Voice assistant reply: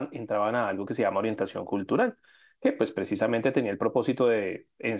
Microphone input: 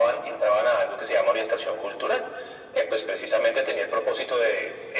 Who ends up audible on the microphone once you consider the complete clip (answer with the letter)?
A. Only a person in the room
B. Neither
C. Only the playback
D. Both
C